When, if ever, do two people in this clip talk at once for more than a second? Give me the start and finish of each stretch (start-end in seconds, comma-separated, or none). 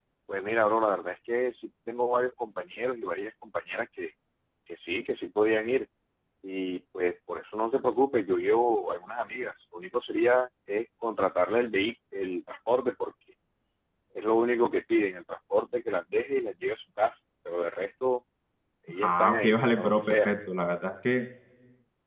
19.0-20.3